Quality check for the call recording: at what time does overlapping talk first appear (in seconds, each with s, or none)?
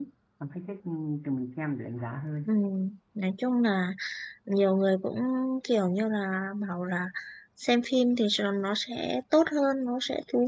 none